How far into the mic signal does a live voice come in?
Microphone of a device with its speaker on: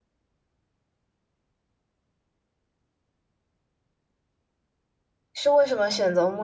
5 s

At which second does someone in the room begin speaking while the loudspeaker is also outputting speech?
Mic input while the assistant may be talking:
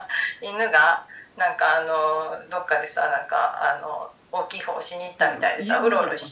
5 s

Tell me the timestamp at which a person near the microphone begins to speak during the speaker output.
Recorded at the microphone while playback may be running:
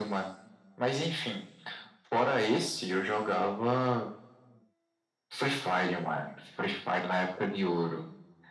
none

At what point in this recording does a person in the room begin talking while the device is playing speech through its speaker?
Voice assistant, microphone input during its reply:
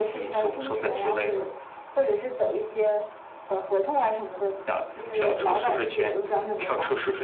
none

